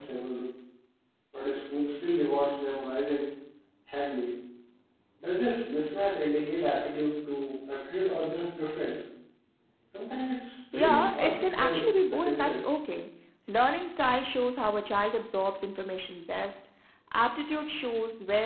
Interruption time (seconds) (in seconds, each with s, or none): 10.7 s